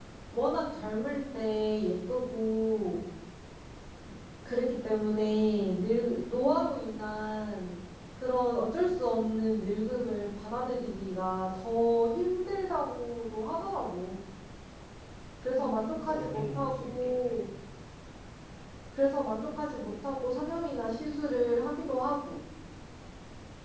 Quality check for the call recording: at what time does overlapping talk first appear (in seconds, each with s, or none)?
15.5 s